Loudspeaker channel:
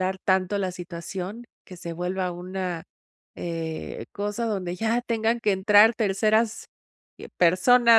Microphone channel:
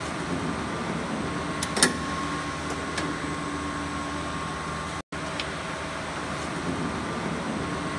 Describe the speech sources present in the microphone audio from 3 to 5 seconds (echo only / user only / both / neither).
neither